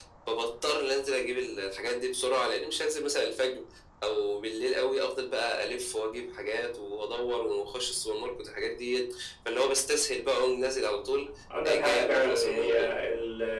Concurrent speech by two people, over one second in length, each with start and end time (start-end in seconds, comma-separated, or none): 11.7-12.9